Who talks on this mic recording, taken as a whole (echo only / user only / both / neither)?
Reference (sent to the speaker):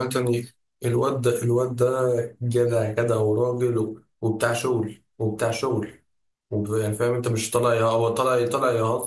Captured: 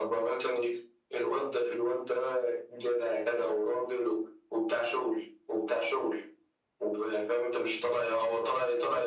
echo only